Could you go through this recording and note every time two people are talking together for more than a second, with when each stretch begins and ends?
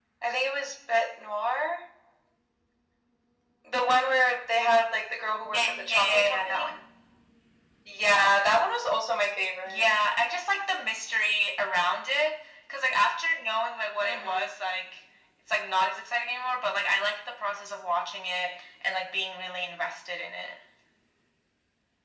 5.5-6.7

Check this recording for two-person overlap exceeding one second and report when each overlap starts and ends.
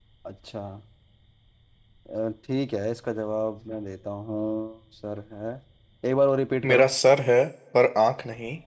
none

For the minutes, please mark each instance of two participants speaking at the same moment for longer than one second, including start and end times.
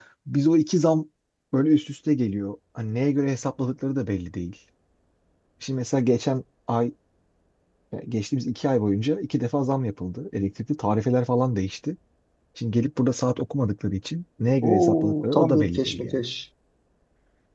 14.6-16.2

